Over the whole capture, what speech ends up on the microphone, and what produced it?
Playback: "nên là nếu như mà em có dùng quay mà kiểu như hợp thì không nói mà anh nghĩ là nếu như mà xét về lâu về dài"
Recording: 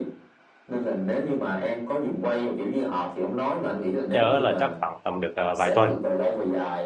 both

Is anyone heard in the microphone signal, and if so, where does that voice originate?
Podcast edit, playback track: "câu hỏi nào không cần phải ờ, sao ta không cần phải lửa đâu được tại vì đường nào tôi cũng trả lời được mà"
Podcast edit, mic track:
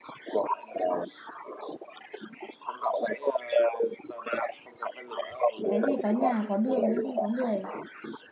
both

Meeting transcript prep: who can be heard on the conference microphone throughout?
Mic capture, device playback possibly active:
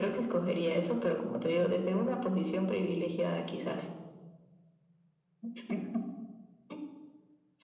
echo only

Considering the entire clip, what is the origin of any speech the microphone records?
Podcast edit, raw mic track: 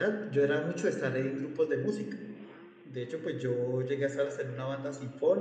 user only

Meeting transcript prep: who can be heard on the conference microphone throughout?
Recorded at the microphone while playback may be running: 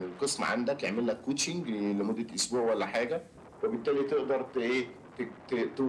echo only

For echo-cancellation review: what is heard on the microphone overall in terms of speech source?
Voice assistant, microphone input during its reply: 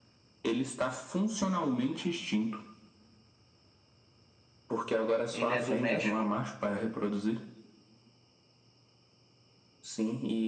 both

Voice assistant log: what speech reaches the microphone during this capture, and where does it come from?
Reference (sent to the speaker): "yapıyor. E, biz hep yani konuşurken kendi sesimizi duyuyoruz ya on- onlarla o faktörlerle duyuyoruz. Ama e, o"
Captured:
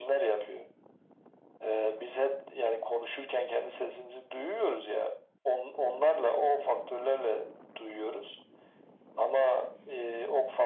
echo only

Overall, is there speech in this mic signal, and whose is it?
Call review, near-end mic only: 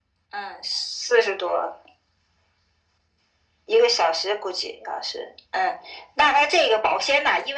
echo only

